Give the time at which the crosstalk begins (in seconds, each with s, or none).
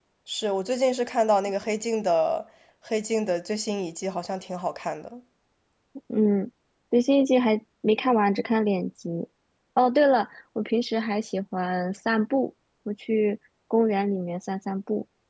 none